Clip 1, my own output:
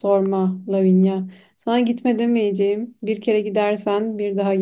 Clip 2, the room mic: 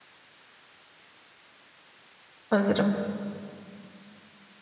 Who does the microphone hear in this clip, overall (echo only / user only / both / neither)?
user only